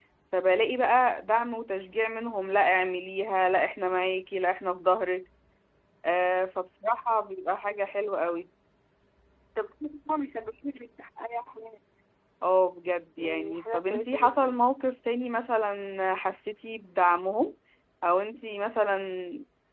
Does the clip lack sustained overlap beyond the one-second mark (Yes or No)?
No